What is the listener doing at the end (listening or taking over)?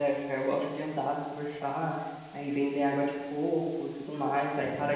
listening